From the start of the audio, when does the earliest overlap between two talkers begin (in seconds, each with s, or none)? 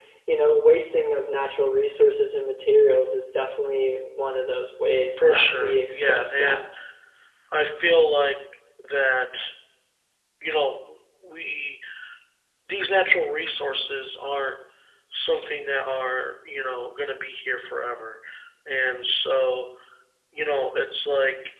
5.2 s